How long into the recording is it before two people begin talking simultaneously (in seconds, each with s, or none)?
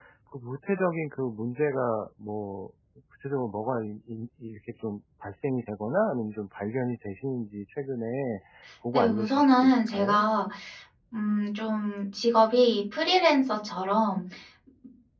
8.9 s